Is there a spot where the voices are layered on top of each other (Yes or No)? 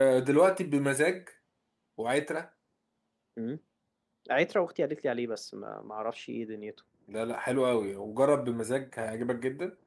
No